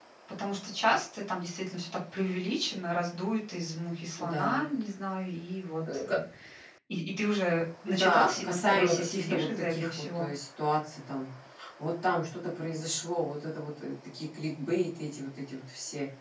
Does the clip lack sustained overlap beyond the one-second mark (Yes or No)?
No